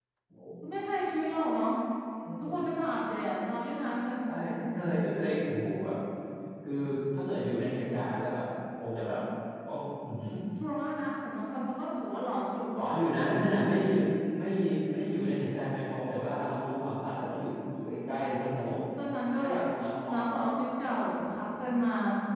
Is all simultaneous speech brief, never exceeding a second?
Yes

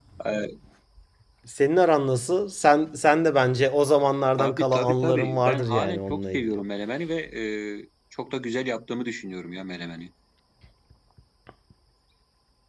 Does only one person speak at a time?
No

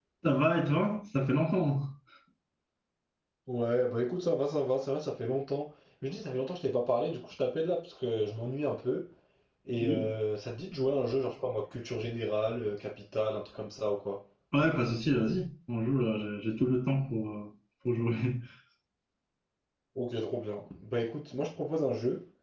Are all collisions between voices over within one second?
Yes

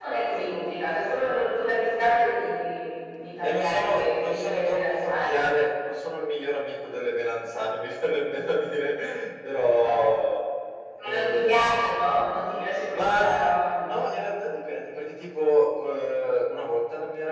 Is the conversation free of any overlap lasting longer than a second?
No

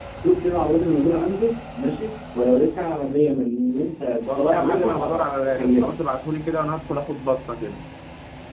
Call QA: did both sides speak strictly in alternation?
No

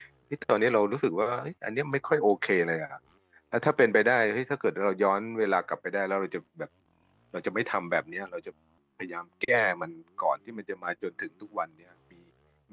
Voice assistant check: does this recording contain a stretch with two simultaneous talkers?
No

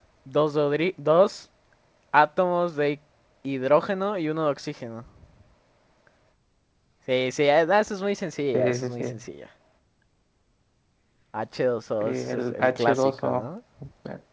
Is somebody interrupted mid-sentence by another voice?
Yes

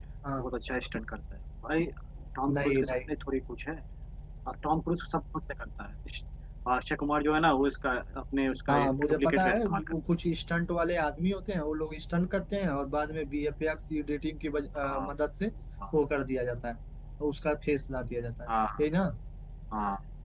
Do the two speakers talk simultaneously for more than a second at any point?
Yes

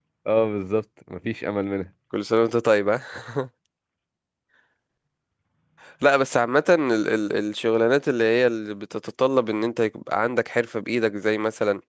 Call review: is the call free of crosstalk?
Yes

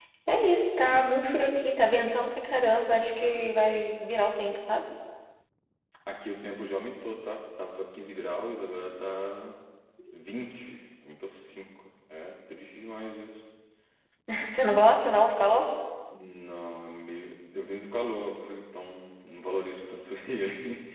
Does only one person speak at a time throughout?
Yes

